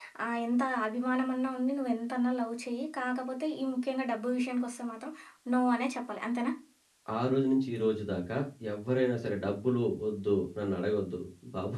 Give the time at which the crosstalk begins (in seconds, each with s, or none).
none